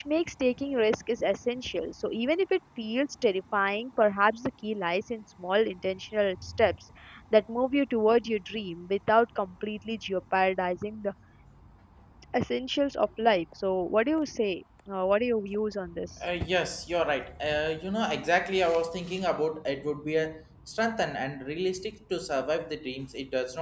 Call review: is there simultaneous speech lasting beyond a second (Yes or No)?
No